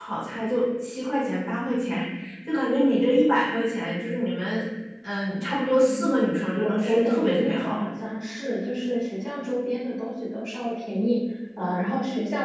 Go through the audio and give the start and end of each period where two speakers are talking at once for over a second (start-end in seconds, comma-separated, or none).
6.6-7.8